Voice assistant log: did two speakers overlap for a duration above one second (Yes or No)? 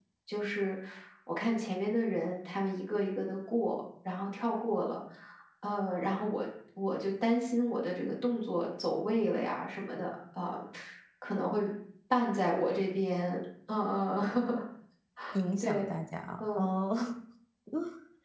No